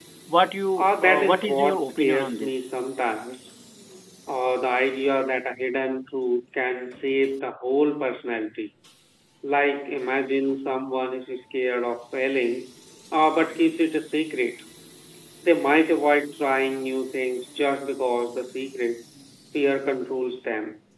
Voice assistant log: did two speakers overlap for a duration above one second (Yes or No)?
Yes